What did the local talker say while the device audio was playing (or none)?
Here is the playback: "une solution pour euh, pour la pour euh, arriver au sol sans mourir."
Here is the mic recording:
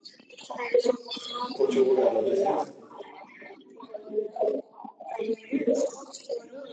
quand tu le regardes la deuxième,